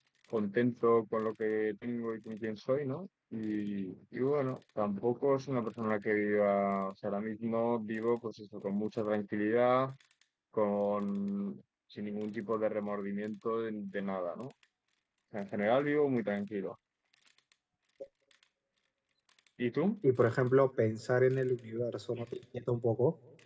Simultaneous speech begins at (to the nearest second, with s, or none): none